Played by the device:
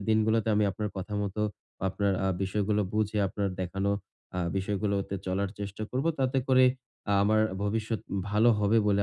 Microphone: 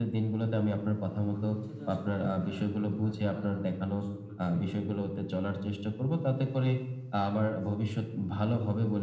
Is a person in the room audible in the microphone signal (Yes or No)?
Yes